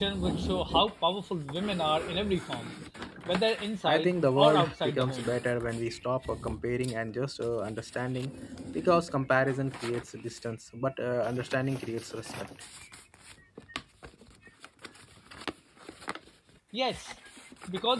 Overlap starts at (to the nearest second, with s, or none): 4 s